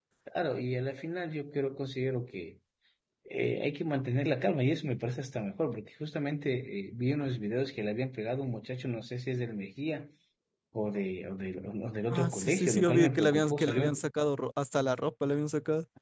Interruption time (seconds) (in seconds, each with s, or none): 12.1 s